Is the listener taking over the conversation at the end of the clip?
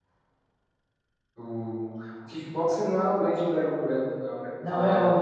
Yes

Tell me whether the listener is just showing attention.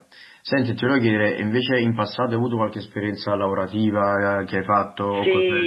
No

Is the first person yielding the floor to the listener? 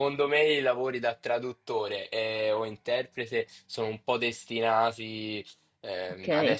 No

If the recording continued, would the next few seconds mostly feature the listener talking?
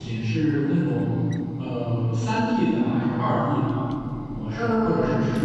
No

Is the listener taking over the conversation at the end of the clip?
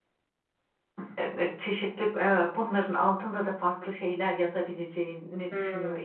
Yes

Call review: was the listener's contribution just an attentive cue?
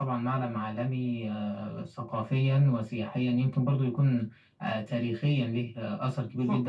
No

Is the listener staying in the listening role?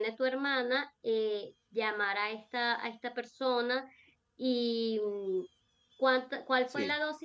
Yes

